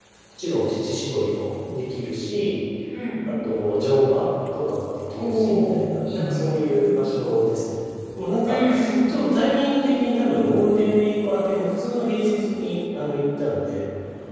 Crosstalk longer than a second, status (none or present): present